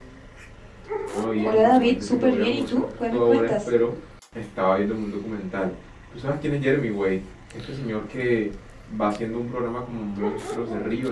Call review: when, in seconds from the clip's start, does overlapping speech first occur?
1.4 s

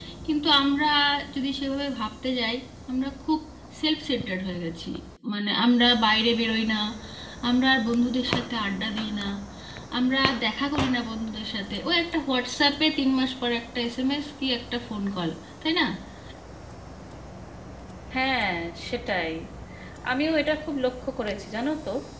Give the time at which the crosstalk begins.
none

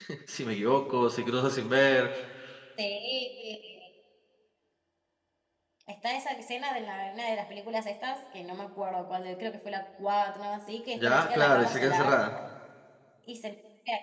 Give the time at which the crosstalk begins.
11.0 s

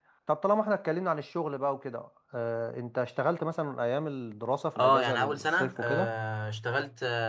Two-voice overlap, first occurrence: 4.8 s

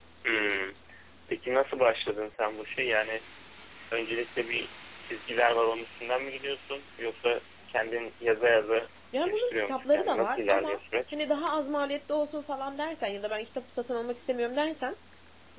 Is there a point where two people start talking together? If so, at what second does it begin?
9.1 s

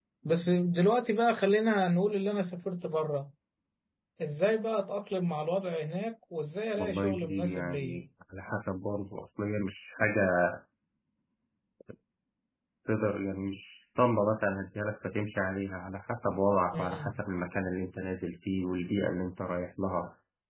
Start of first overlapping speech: 6.8 s

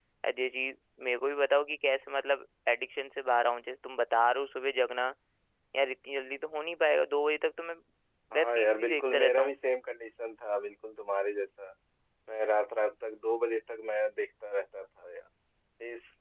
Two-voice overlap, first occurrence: 8.3 s

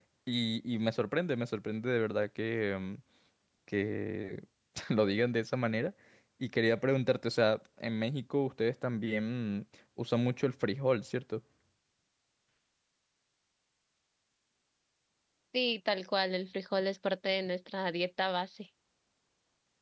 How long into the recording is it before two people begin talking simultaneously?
none

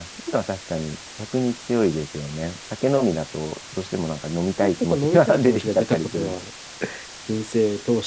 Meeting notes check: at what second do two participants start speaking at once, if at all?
4.6 s

